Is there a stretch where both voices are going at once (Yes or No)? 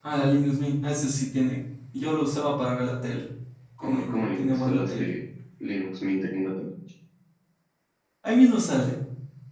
Yes